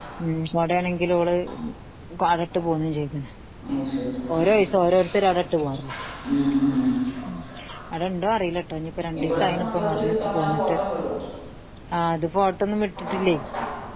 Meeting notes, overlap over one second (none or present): present